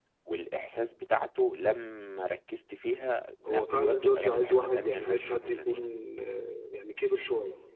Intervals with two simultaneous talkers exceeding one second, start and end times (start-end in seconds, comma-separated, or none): 3.5-5.8